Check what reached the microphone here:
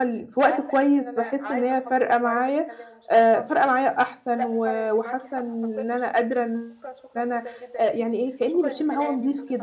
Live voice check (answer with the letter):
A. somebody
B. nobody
A